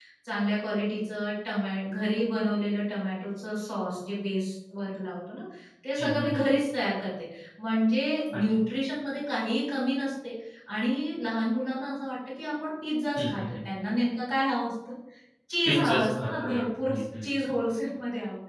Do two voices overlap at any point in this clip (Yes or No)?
Yes